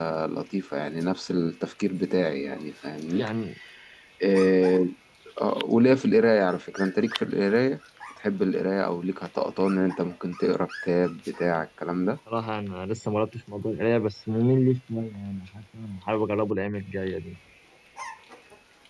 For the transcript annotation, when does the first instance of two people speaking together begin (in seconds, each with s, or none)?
none